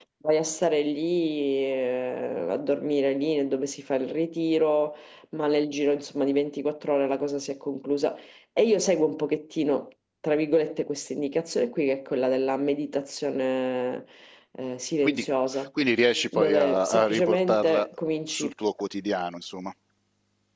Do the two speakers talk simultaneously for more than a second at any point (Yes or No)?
Yes